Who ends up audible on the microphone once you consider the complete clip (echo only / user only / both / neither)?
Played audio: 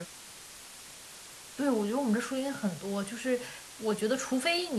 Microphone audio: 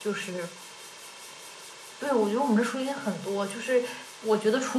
echo only